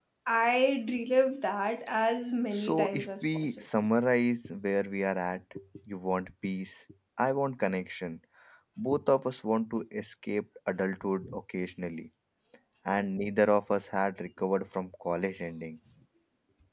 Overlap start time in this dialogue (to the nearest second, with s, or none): 3 s